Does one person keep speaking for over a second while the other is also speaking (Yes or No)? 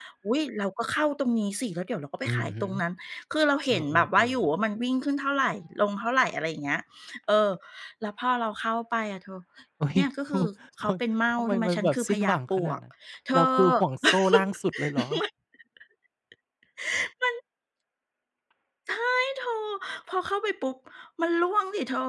Yes